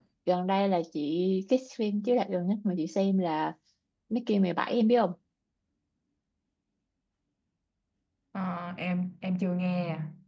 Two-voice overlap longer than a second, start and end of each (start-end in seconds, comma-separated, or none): none